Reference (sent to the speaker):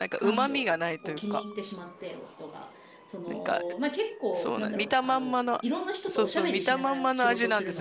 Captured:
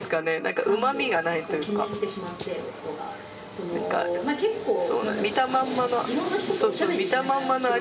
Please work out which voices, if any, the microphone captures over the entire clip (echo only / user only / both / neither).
echo only